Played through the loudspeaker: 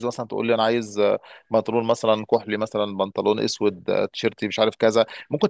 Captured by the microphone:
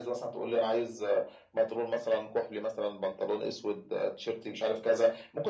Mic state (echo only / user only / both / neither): echo only